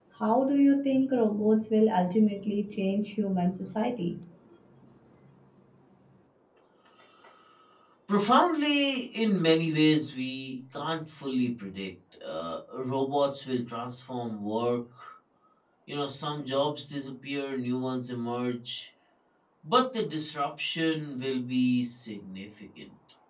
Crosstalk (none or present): none